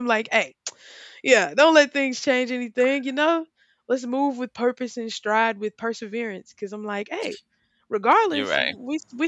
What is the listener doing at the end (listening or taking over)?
listening